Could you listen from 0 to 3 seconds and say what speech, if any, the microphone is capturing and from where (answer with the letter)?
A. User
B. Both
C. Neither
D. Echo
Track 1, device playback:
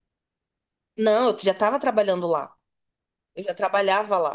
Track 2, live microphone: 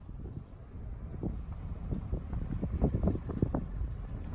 C